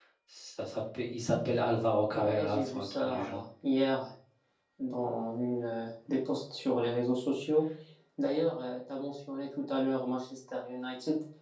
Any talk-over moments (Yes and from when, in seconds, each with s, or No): Yes, from 2.1 s